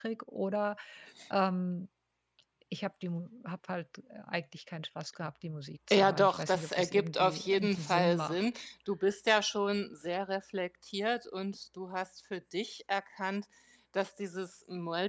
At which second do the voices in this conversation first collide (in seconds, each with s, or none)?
5.9 s